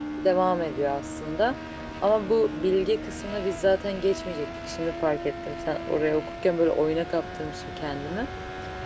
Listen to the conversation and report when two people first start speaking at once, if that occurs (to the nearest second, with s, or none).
none